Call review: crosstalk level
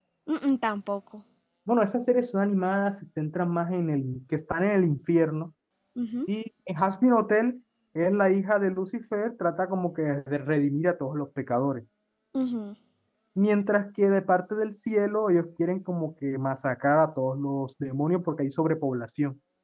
none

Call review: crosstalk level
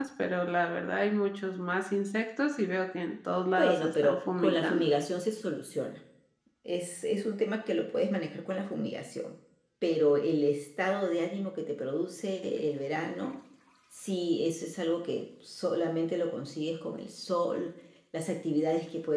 present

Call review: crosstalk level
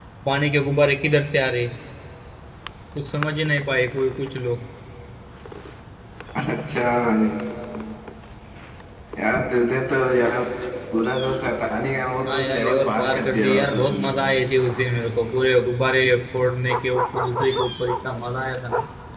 present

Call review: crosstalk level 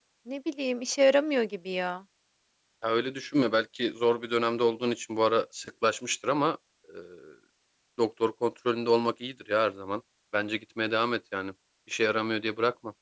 none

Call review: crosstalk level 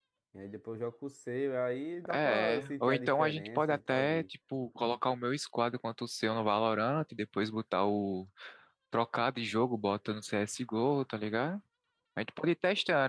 present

